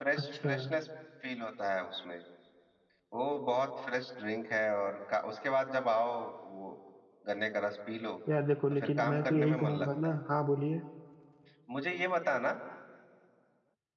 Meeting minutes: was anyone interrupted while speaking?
Yes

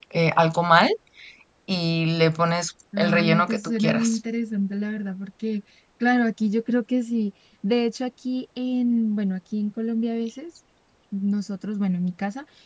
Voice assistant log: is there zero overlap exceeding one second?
No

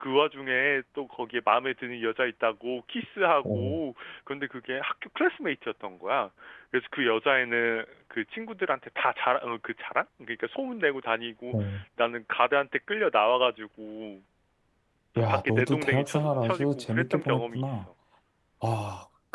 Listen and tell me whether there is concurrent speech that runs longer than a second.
Yes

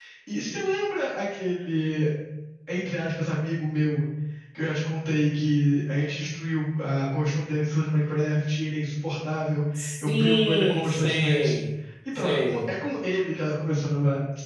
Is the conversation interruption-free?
No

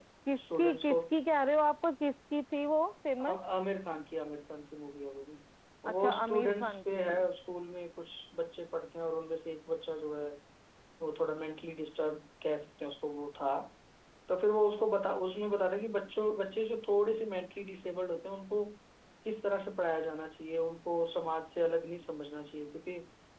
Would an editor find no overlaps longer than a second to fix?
No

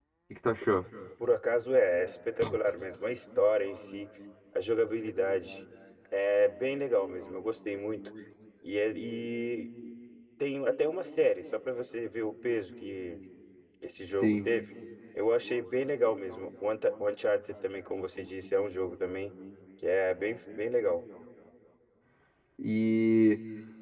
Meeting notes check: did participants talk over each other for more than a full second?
No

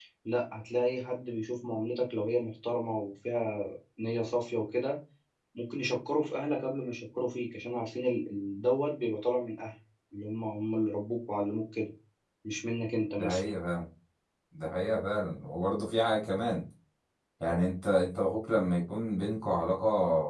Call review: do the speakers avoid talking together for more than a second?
Yes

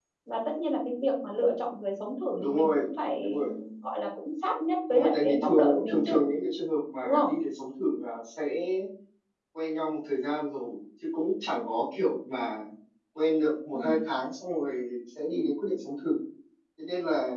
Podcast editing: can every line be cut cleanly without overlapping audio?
No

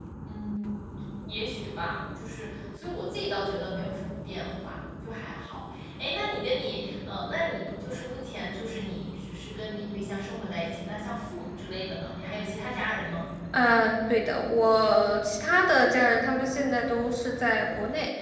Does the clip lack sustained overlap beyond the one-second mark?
Yes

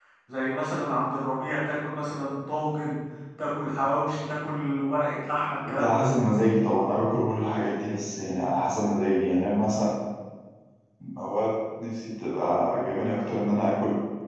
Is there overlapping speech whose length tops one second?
No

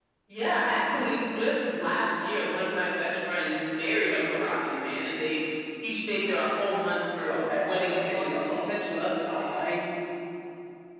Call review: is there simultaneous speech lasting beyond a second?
Yes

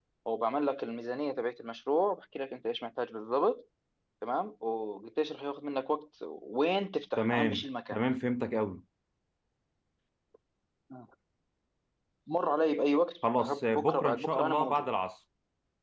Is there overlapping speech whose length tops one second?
Yes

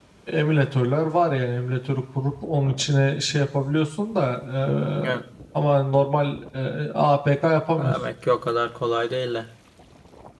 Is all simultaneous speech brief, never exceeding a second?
Yes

